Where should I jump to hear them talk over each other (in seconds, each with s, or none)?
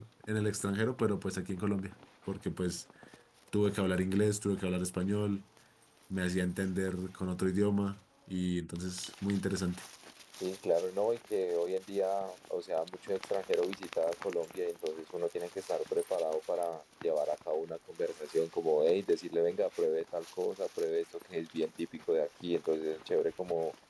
none